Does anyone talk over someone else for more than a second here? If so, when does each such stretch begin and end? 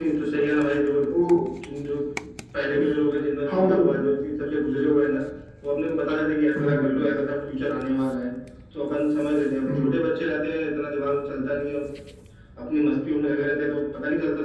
none

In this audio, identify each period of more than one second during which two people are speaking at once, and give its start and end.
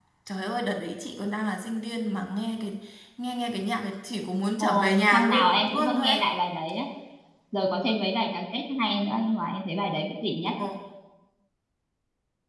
4.6-6.2

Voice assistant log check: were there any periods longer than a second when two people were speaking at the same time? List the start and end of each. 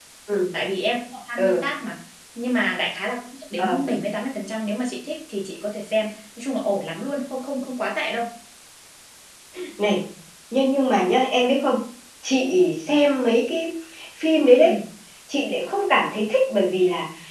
none

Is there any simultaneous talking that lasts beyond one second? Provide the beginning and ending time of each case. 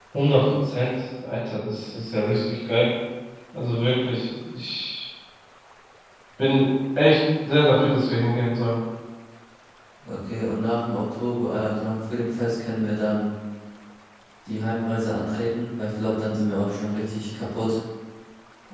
none

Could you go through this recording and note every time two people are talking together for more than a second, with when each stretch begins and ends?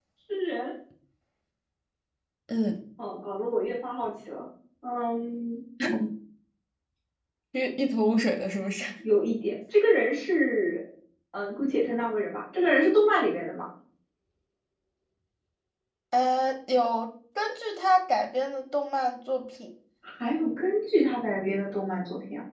none

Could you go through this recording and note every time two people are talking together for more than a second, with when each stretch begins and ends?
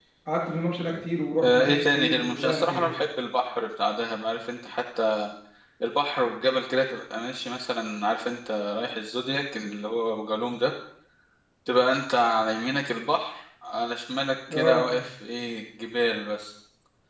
1.4-2.8

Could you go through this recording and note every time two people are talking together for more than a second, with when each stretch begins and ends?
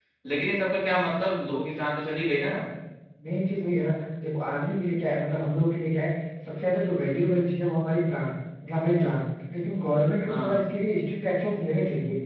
none

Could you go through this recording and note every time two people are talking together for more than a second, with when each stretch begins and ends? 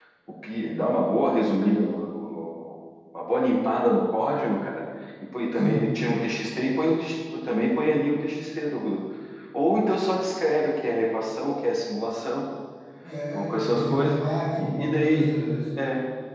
13.3-15.3

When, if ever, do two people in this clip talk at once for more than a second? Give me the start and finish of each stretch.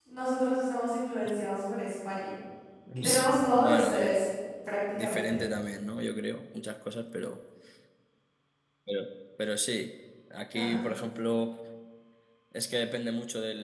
3.0-4.2

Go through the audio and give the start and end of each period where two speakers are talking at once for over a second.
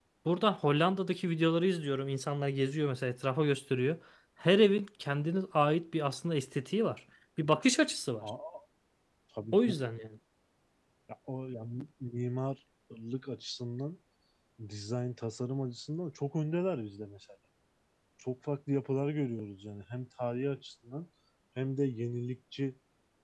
none

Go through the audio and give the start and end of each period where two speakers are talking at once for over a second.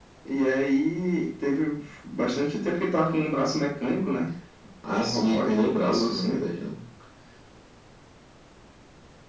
4.9-6.4

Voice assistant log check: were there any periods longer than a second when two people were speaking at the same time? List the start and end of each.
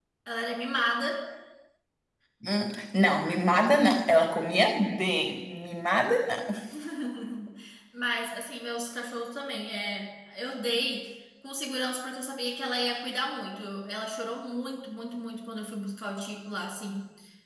none

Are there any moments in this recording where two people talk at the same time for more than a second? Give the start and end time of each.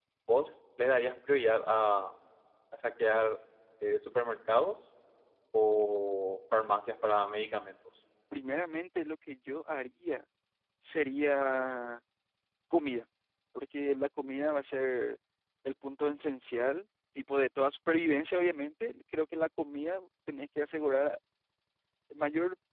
none

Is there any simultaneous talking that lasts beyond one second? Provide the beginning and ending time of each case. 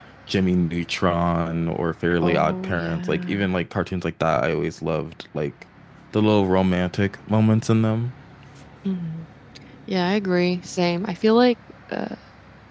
2.2-3.4

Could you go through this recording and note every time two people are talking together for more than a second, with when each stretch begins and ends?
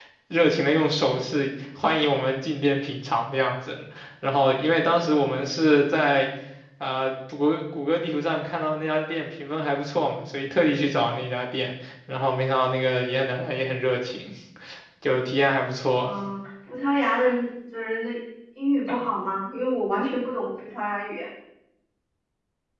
none

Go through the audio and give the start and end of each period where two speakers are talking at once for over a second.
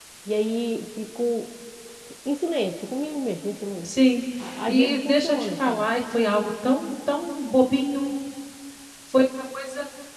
4.6-5.8

